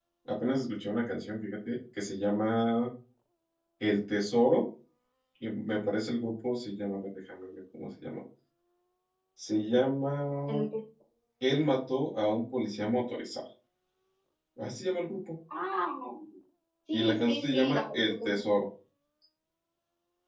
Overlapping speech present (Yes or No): Yes